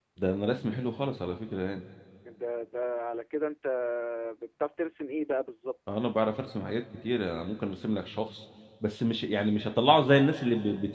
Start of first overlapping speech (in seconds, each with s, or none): none